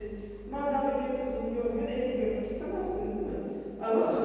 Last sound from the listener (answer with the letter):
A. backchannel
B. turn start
A